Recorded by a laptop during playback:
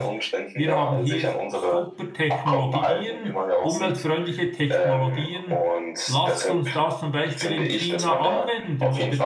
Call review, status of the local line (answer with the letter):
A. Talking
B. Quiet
A